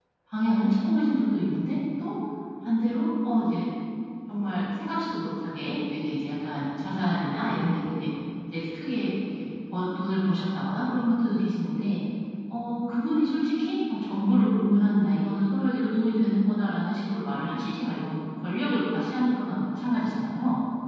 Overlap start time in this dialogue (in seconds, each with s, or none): none